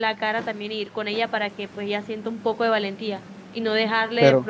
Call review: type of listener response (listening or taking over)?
listening